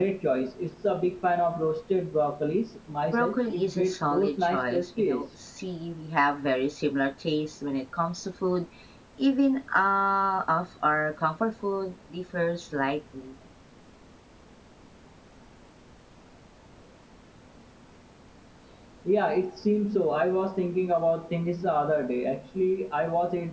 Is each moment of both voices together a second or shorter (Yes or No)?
No